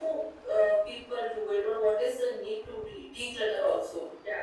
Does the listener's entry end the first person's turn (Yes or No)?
Yes